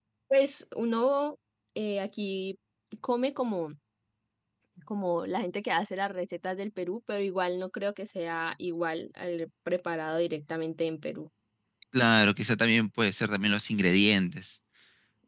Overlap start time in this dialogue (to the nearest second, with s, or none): none